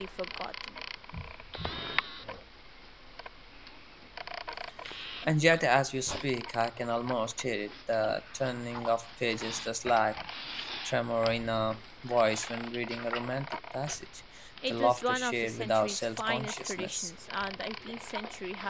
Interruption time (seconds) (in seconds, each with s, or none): 14.7 s